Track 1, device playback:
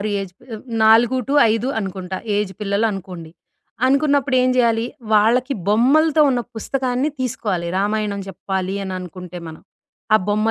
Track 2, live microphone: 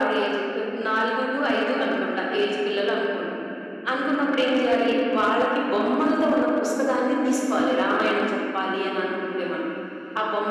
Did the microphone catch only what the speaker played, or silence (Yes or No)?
Yes